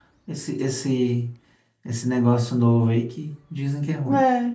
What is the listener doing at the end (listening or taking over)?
taking over